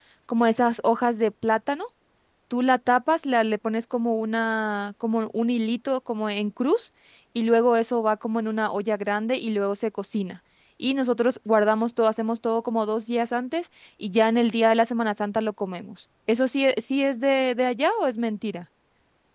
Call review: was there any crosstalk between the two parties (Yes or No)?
No